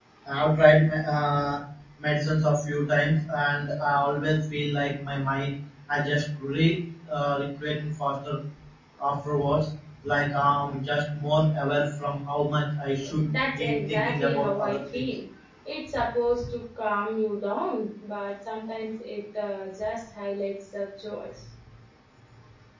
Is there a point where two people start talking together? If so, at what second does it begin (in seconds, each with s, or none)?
13.0 s